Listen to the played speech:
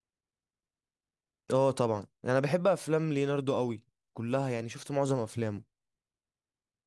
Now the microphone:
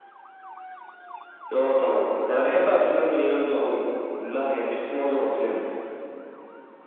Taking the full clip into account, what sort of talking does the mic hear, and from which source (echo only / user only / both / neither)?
echo only